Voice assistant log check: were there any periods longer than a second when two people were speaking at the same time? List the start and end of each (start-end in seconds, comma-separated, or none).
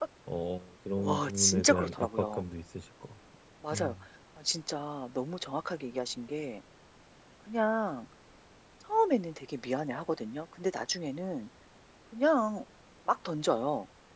1.0-2.4